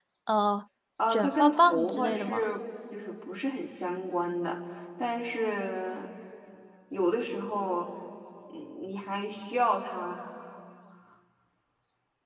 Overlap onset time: 1.1 s

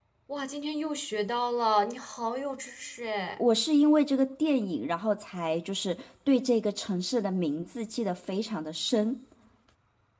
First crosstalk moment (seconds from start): none

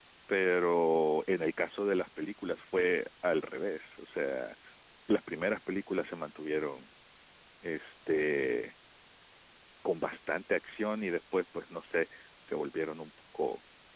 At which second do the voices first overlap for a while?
none

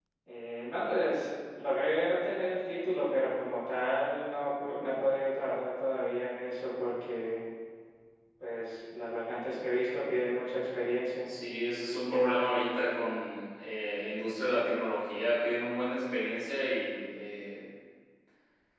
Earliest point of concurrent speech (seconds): none

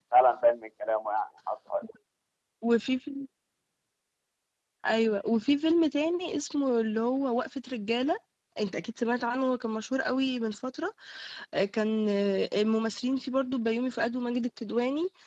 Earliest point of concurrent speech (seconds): none

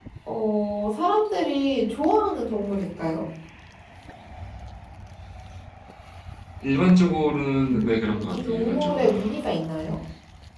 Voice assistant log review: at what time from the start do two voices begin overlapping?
7.7 s

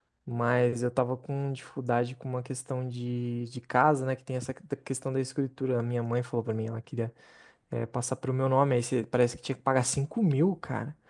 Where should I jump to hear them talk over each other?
none

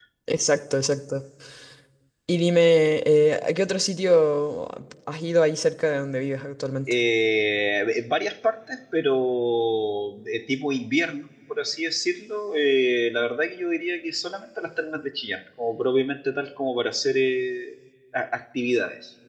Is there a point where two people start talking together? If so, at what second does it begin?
none

